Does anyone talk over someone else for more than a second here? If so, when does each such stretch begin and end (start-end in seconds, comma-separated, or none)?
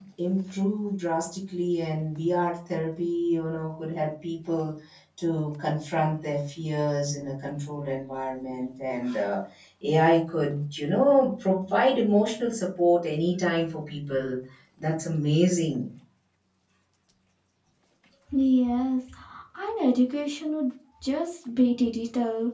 none